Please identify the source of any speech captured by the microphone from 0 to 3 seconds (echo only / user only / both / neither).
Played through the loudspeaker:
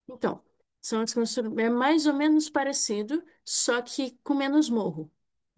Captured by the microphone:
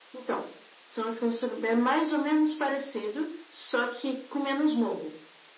echo only